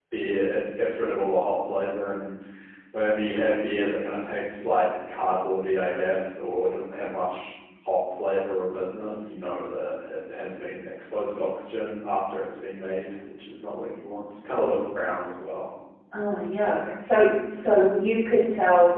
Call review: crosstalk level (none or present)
none